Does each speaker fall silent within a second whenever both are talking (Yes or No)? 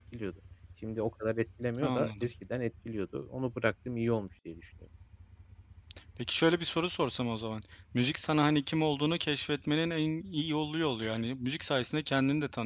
Yes